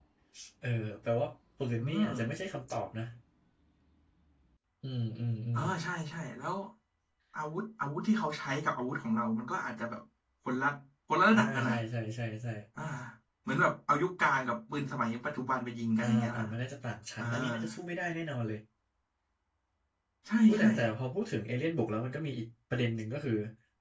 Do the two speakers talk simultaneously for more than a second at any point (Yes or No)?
No